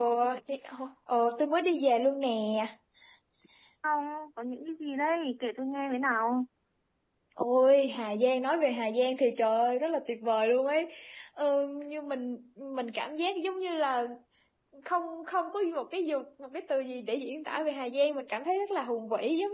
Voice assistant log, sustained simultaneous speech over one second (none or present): none